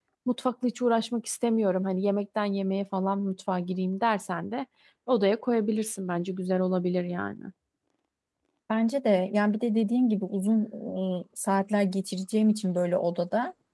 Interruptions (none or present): none